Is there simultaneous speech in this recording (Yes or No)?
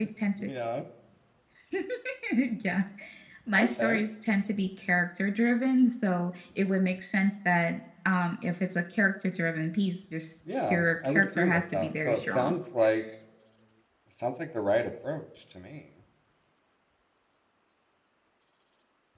Yes